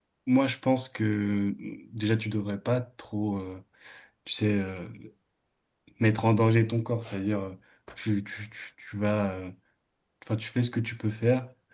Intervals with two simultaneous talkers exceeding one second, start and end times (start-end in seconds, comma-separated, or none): none